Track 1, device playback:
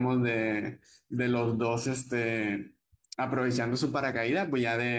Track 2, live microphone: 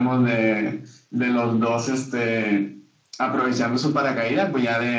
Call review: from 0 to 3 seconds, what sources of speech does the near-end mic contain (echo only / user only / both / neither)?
echo only